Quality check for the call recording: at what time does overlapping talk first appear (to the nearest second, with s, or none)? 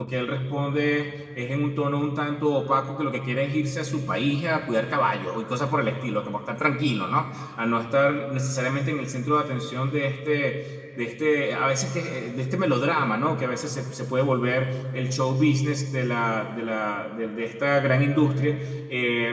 none